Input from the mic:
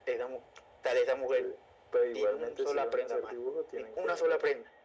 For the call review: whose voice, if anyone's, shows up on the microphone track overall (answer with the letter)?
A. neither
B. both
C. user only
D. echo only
D